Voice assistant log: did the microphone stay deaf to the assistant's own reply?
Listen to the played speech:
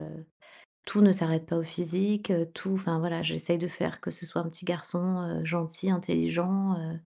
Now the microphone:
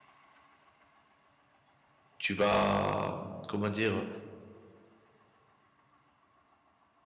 Yes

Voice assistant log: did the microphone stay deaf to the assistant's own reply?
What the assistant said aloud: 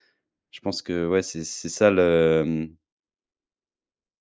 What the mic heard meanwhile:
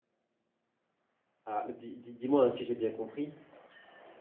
Yes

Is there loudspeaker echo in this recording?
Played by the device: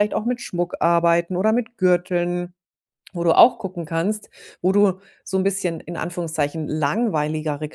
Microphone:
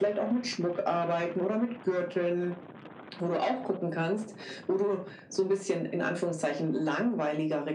Yes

